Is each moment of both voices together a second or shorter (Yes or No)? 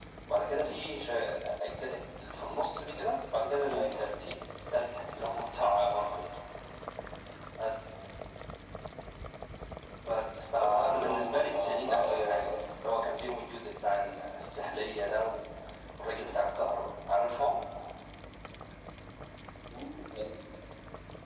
No